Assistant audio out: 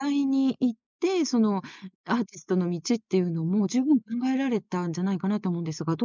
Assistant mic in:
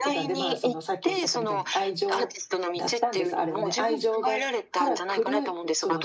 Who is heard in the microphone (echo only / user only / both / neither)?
both